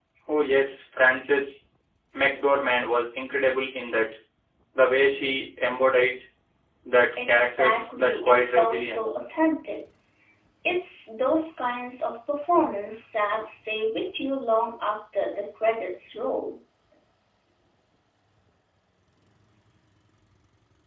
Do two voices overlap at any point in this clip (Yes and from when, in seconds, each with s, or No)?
Yes, from 7.3 s